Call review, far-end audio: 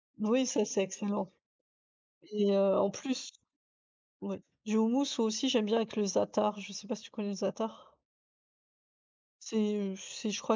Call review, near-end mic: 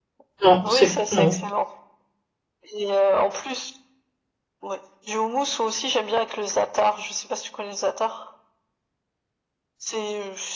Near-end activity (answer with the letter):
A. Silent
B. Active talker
B